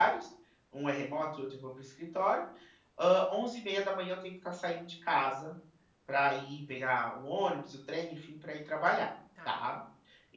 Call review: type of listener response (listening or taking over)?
listening